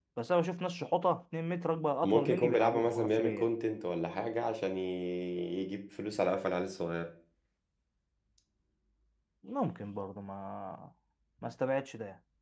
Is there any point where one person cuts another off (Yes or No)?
Yes